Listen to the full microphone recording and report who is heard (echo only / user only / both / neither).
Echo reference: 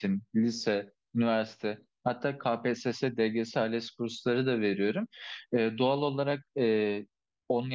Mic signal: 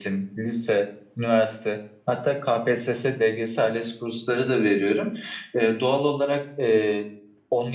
echo only